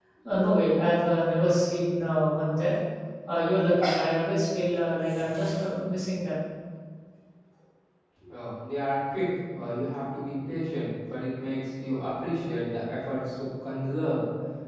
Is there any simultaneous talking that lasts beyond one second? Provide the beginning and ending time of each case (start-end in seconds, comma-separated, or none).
none